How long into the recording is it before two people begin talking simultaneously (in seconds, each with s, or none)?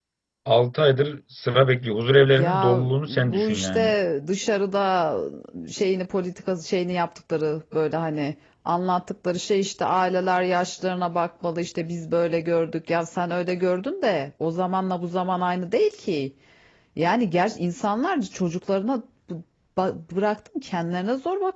2.3 s